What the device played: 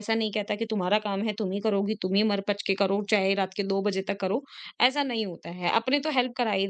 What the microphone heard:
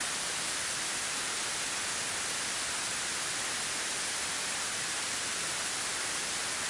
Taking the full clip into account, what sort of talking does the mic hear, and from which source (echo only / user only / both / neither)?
neither